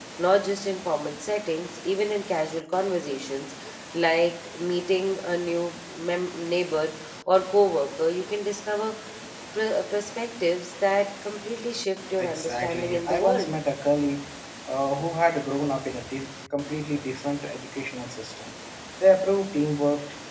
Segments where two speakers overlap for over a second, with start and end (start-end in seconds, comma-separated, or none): 12.2-13.5